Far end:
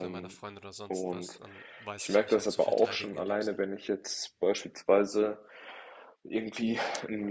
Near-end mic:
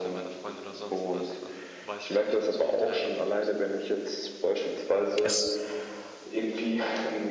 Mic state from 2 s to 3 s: echo only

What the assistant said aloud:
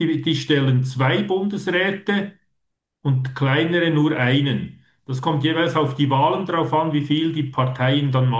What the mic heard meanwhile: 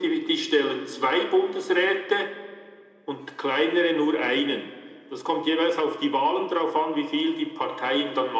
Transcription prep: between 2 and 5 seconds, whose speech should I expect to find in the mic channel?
echo only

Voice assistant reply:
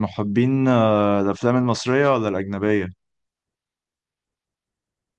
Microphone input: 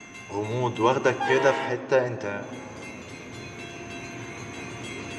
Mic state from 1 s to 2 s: user only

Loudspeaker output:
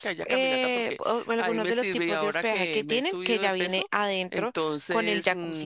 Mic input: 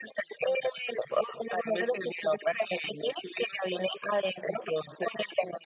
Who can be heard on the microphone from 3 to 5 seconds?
echo only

